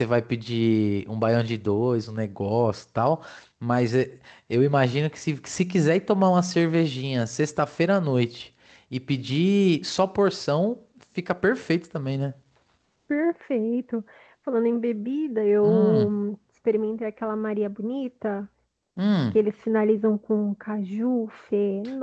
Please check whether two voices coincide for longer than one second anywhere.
No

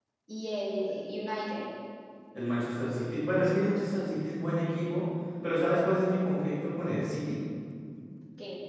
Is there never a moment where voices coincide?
Yes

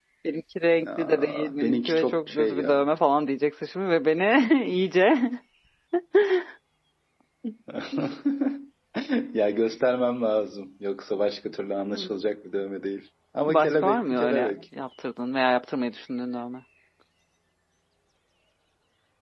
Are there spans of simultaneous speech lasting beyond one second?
Yes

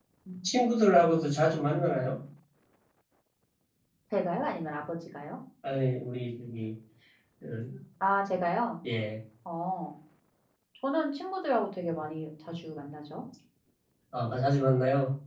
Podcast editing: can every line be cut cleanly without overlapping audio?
Yes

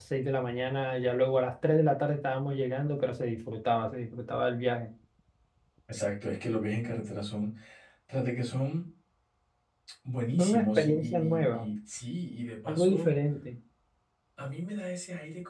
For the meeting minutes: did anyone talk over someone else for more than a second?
Yes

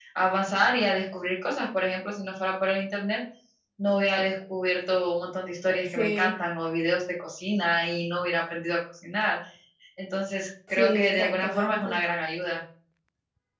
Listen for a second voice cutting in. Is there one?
Yes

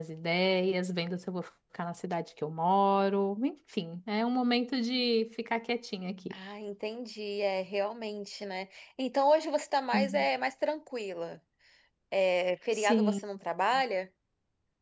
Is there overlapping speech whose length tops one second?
No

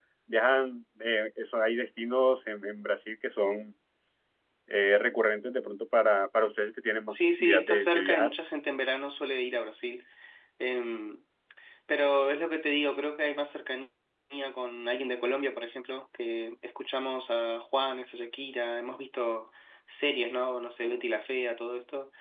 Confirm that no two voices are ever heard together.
No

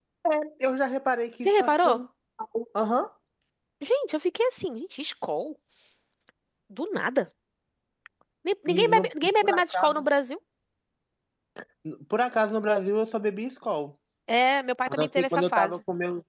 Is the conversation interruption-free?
No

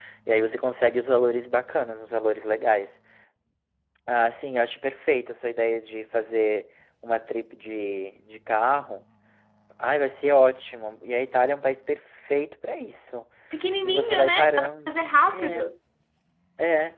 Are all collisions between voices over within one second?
No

